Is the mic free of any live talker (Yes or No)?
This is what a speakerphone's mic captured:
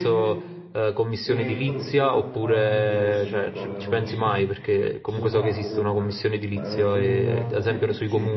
No